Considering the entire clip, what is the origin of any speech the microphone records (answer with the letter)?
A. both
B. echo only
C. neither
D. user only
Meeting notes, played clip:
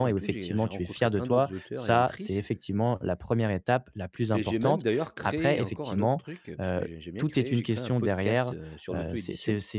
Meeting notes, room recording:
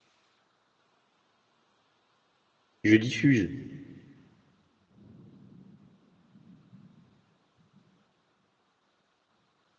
D